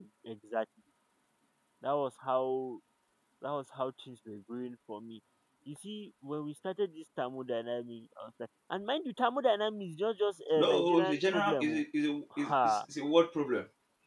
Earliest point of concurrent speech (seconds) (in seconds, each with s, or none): 10.6 s